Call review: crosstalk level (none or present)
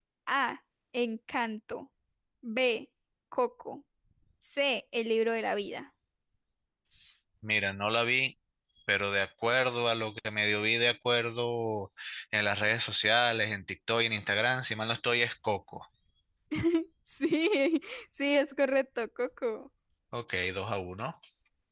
none